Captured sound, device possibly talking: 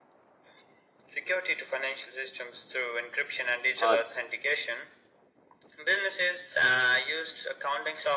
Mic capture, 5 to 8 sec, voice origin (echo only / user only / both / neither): echo only